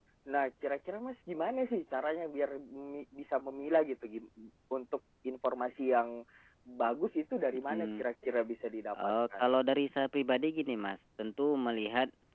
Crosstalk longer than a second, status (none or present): none